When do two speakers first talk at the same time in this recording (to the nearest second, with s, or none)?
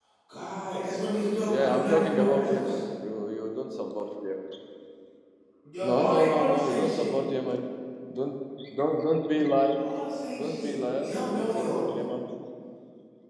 1 s